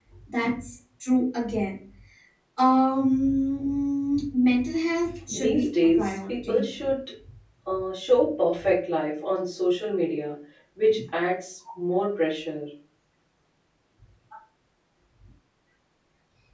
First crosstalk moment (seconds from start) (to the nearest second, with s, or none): 5 s